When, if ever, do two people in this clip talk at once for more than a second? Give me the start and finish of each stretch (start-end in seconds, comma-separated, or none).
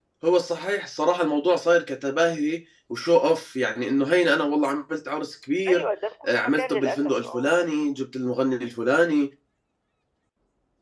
6.2-7.5